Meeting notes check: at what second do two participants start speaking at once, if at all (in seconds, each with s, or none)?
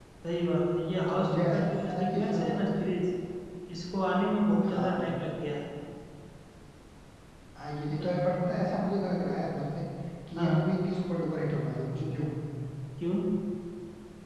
1.1 s